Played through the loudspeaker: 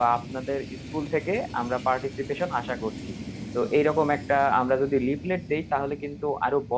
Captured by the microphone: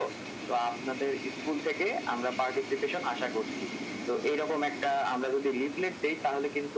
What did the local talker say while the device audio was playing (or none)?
none